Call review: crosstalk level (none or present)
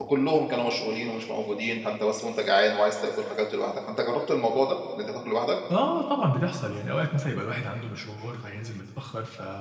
none